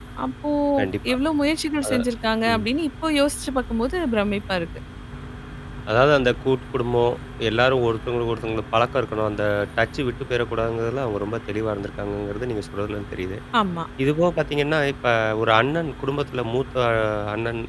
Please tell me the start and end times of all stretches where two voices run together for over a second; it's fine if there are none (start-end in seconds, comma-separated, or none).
none